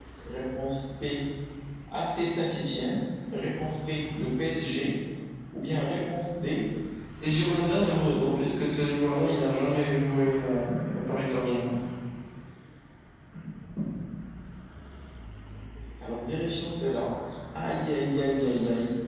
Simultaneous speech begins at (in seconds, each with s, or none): 7.3 s